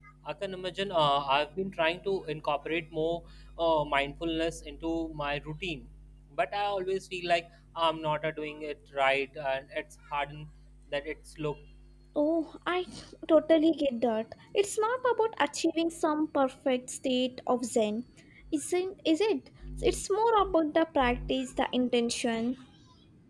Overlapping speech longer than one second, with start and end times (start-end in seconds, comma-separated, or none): none